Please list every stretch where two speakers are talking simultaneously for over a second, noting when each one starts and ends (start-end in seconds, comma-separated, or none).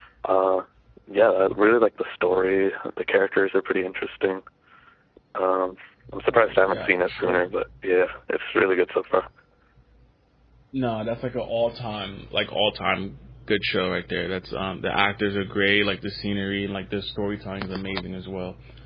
6.3-7.5